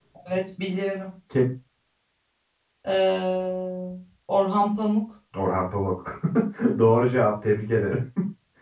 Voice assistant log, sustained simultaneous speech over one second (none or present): none